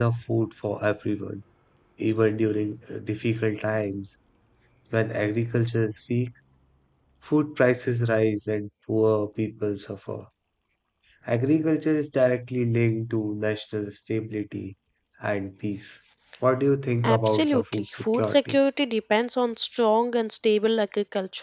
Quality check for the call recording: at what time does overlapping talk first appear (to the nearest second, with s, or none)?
17 s